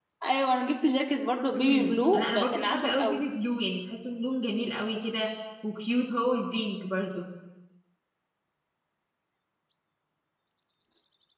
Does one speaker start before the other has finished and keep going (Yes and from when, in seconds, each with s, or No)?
Yes, from 1.5 s